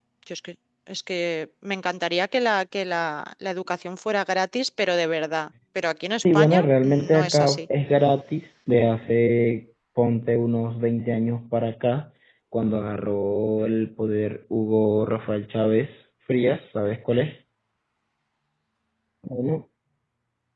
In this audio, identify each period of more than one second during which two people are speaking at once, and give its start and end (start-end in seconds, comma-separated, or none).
6.2-7.6